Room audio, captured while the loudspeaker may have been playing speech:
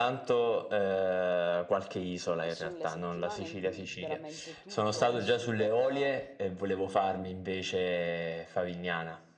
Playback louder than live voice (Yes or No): Yes